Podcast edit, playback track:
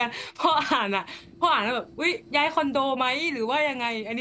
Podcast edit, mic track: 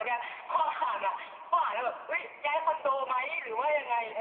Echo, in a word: present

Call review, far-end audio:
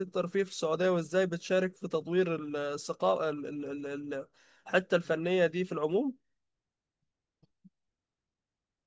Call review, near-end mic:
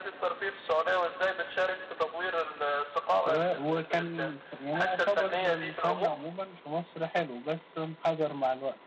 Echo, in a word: present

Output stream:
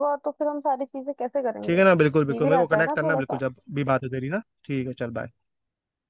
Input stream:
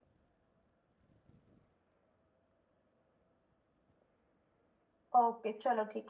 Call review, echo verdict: none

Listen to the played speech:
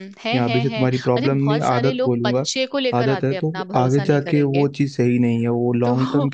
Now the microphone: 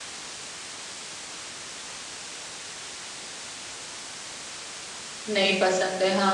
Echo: none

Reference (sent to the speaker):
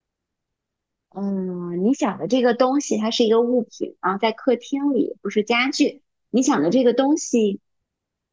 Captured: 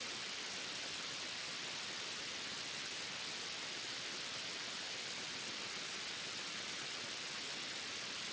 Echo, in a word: none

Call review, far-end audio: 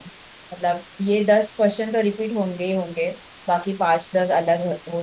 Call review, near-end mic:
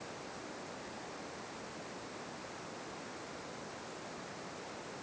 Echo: none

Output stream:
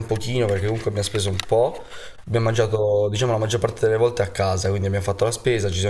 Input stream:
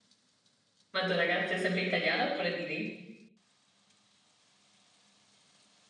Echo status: none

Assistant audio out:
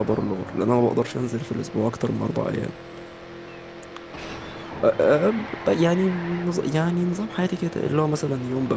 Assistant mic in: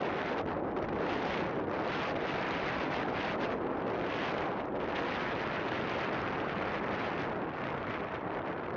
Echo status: none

